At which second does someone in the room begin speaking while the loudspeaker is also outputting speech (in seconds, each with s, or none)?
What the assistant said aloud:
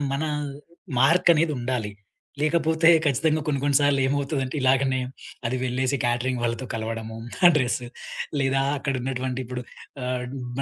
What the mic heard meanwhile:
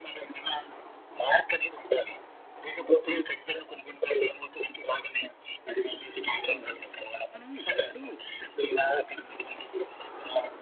6.5 s